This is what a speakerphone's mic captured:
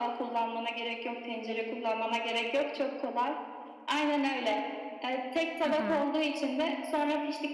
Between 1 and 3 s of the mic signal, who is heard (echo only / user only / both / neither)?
echo only